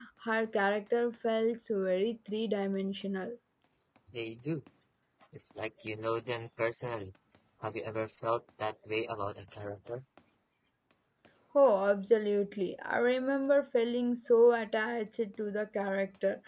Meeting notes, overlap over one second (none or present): none